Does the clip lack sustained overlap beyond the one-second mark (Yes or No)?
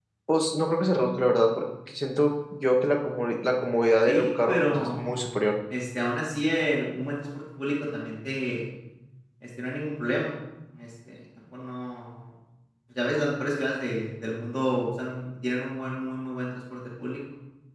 No